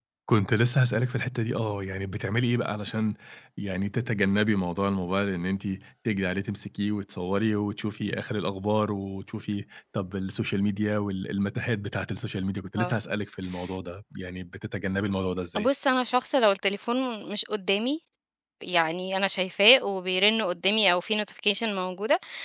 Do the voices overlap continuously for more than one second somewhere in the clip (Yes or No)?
No